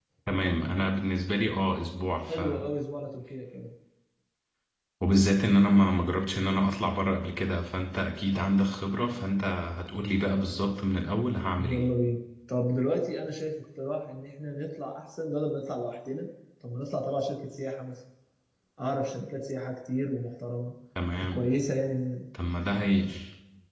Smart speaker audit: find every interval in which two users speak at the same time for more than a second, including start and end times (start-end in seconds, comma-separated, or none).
none